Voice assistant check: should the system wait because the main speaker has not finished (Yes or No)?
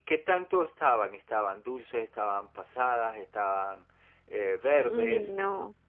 No